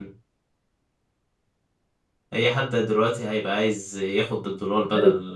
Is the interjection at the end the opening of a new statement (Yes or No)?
No